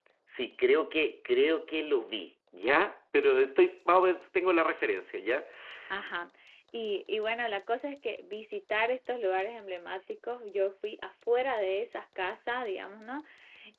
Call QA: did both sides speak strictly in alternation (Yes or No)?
Yes